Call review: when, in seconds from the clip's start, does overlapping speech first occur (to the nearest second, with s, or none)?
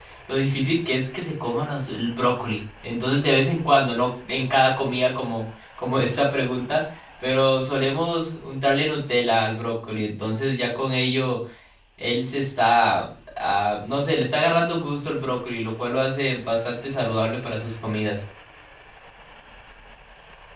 none